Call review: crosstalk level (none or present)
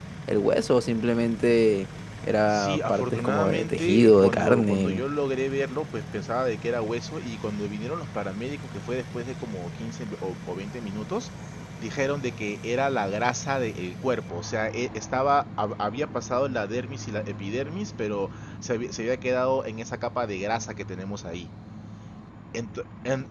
present